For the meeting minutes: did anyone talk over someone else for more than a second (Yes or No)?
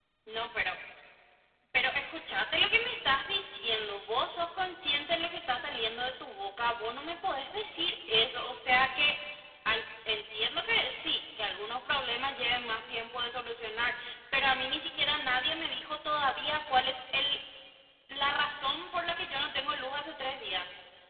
No